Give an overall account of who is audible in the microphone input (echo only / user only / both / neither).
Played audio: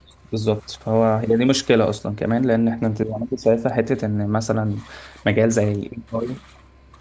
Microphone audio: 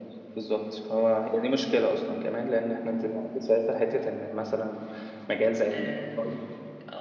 both